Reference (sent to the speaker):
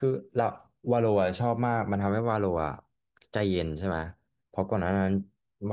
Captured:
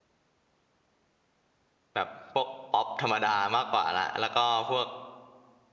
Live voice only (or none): แบบพวกป๊อปธรรมดามากกว่าละแล้วก็พวก